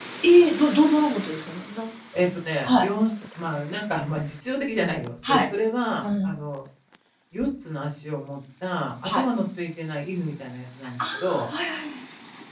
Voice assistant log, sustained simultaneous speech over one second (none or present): none